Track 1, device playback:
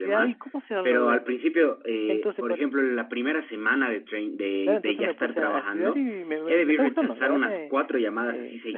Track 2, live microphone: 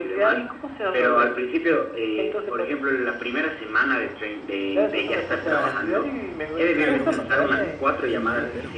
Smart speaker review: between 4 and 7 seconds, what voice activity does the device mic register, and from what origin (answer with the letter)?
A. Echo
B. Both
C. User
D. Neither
B